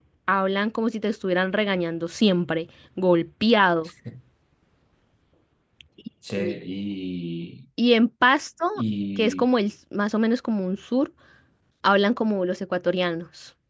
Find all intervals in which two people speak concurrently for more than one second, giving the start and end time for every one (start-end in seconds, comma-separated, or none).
none